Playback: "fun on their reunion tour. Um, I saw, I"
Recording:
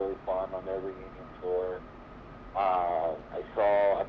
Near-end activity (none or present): none